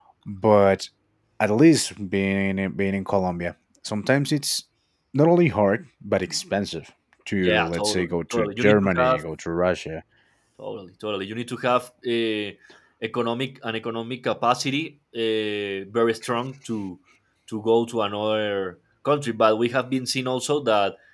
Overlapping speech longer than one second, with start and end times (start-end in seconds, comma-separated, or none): 7.4-9.2